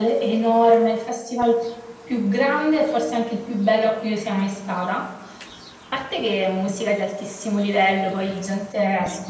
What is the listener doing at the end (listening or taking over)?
listening